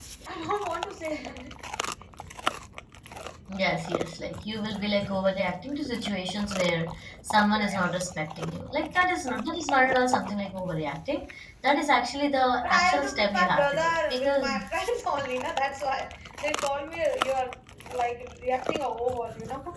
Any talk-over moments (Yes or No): Yes